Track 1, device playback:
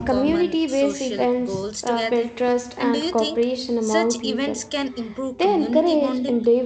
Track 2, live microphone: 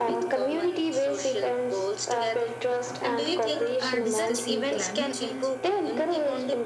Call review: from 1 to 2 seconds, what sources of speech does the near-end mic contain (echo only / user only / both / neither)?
echo only